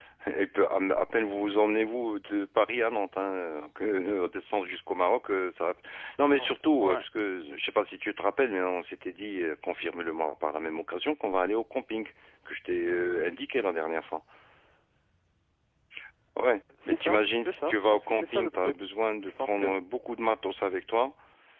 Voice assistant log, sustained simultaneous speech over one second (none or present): present